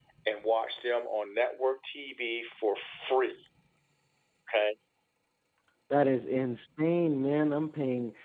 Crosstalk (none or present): none